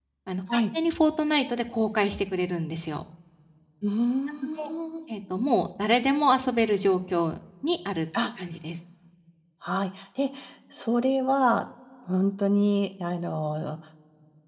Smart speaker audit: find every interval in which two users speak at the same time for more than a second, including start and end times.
none

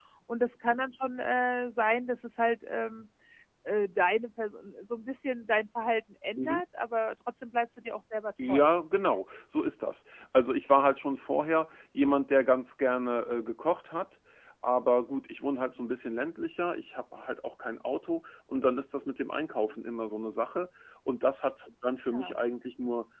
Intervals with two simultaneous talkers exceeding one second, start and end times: none

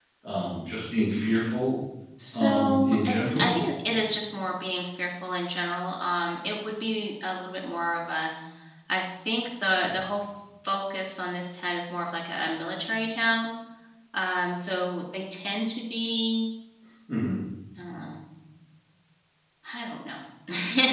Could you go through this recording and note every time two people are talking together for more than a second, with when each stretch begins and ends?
2.3-3.6

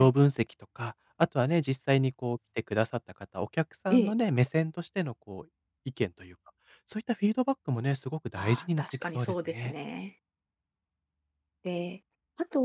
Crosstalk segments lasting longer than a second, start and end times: 8.4-9.7

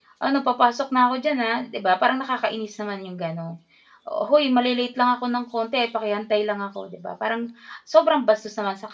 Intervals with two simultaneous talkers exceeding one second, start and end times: none

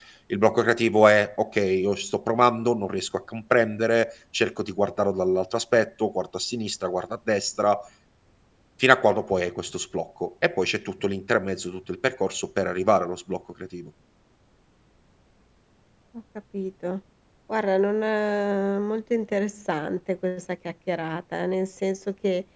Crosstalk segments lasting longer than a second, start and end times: none

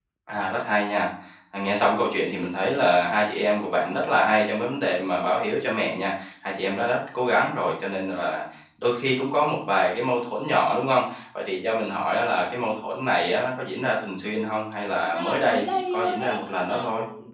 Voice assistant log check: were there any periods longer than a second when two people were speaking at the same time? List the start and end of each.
15.0-16.9

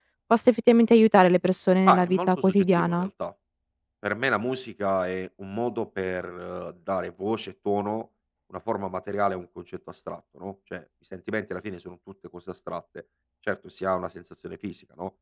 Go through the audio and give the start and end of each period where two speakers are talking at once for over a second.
1.9-3.1

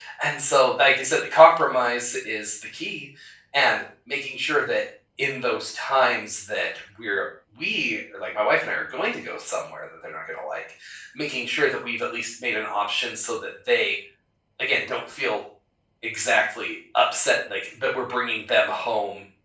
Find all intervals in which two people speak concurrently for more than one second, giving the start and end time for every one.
none

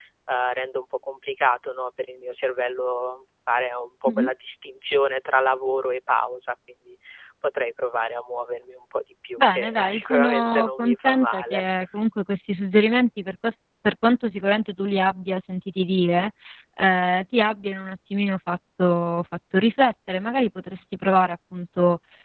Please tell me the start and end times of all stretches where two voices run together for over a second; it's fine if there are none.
9.4-11.6

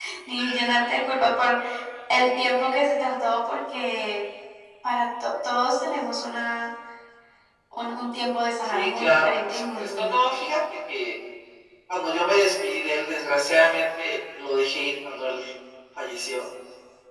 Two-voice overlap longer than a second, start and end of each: 8.7-10.3

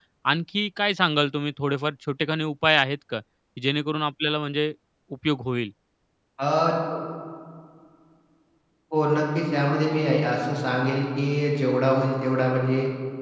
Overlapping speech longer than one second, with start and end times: none

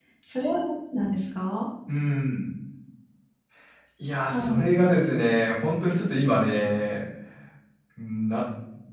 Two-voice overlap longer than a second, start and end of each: none

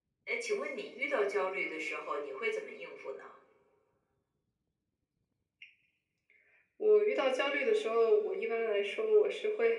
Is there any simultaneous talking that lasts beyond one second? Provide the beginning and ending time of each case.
none

